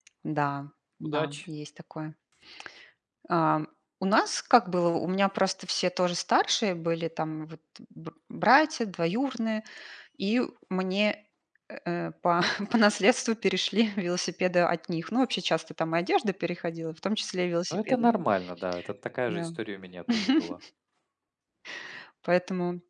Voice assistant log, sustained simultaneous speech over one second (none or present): none